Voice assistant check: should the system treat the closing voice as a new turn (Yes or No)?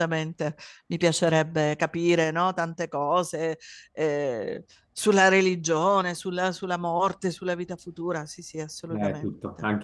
Yes